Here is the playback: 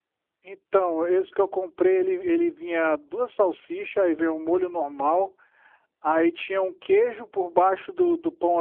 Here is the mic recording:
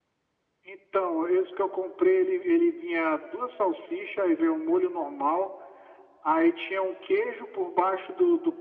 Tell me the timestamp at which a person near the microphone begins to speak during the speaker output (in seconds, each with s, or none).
none